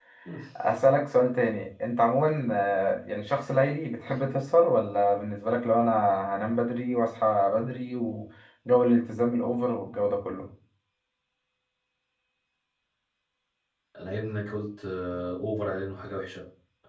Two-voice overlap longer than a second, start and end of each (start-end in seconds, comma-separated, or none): none